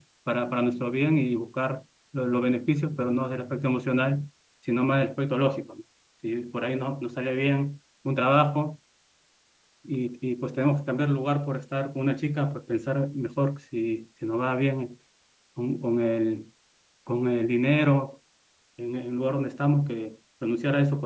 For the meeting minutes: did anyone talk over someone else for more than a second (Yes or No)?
No